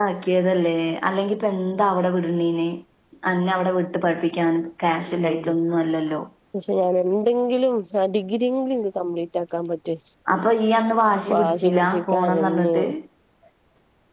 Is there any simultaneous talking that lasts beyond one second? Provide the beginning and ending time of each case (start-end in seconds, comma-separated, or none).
11.3-12.7